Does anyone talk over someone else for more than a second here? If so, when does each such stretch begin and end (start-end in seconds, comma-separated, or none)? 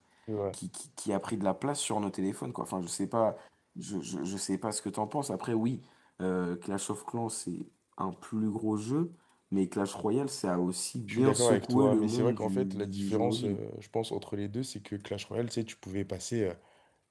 11.1-13.6